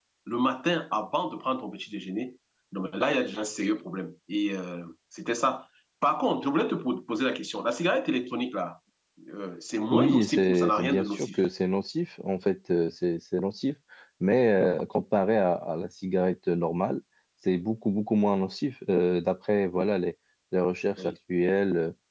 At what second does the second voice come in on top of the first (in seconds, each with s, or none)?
9.9 s